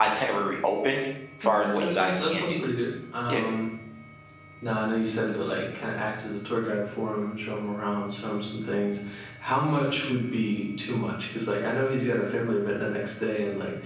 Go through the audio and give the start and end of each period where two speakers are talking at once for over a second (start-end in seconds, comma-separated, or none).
1.4-2.7